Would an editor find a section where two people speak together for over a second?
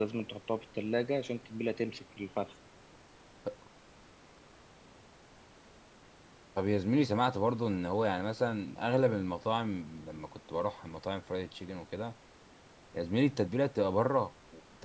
No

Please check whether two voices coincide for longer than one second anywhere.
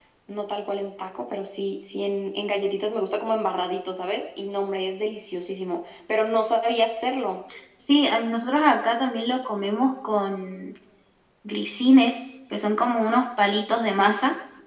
No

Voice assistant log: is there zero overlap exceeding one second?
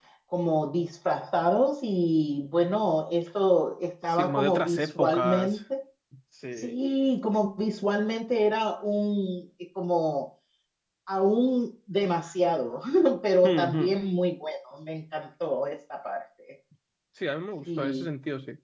No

